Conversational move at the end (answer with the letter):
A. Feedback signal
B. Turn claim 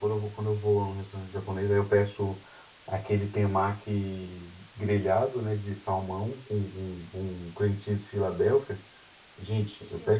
A